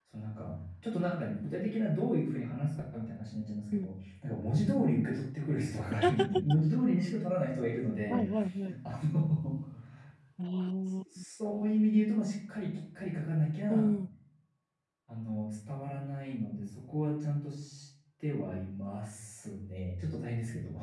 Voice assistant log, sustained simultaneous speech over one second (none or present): none